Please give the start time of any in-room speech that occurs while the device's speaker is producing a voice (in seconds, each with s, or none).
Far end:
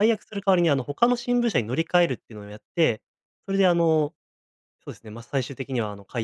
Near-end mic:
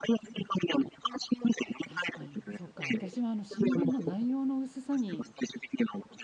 1.8 s